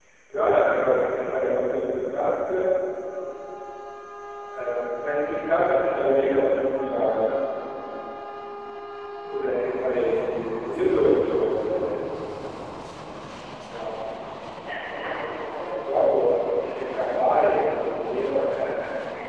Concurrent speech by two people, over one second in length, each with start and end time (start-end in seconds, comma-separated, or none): none